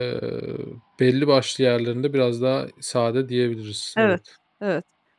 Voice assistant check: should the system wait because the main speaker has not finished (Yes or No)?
No